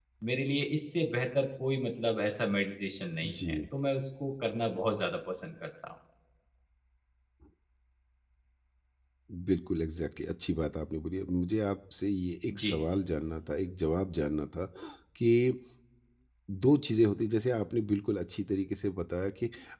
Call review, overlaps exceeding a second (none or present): none